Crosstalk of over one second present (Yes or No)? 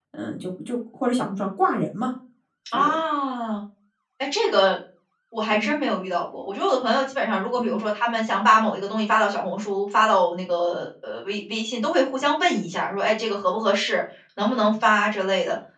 No